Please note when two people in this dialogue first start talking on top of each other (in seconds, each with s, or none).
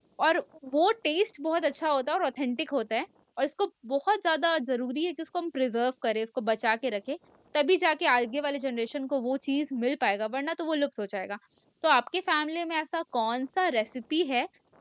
none